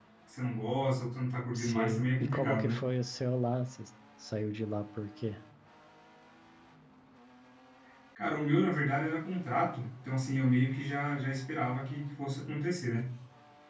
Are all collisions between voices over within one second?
No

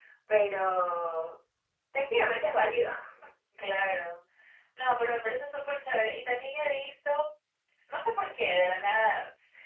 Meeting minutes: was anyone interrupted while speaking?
No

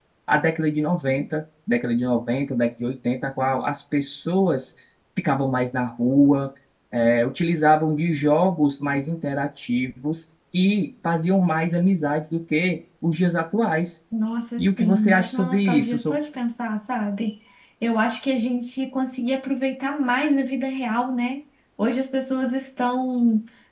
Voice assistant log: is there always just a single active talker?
No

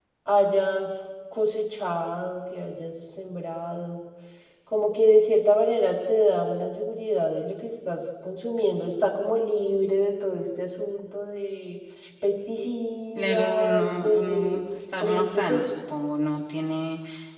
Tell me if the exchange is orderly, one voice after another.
No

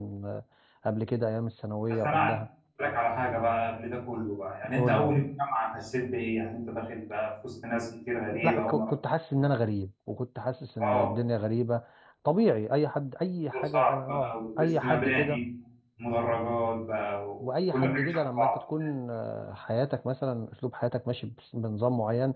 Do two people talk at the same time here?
Yes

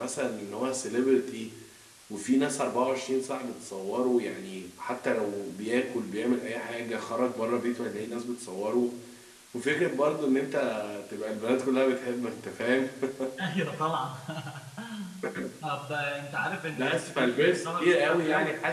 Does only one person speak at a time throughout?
No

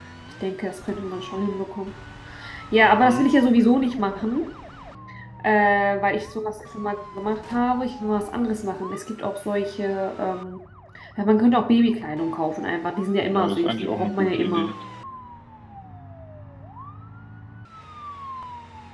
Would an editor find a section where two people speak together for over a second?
Yes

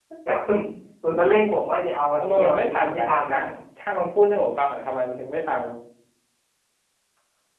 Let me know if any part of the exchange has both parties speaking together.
Yes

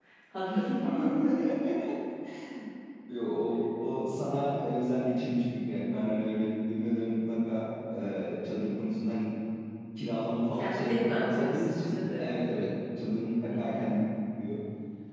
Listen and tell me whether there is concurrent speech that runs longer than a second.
Yes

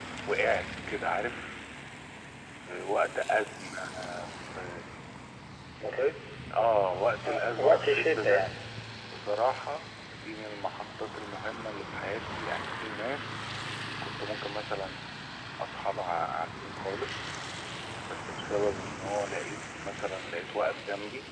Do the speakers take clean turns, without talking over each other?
No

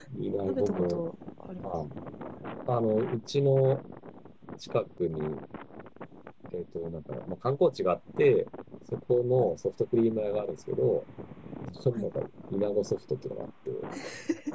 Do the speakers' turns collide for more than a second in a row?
No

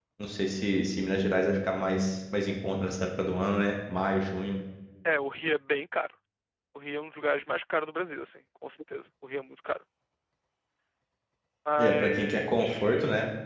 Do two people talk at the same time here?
Yes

